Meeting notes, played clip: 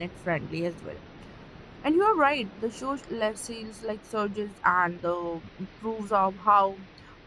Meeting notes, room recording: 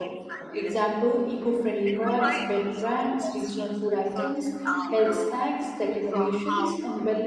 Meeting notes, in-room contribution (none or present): present